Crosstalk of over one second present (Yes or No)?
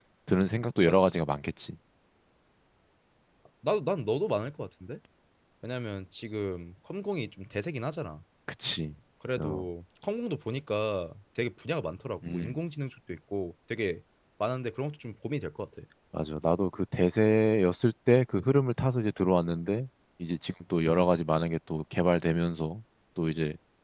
No